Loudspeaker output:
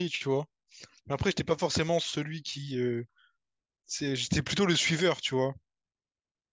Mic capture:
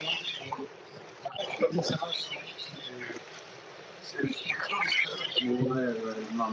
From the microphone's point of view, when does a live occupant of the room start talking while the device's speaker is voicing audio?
5.4 s

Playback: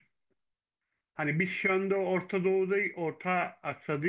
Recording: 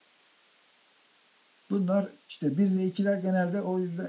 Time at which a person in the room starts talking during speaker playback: 1.7 s

